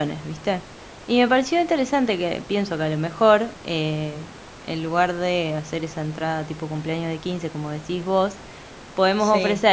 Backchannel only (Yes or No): Yes